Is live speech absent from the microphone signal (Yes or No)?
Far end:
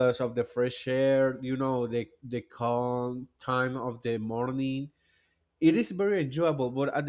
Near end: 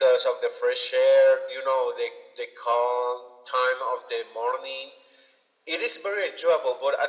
Yes